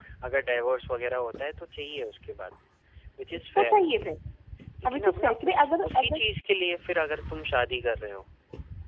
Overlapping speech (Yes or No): Yes